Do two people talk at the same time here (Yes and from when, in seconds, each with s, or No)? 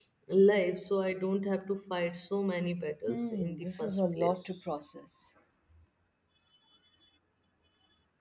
Yes, from 3.1 s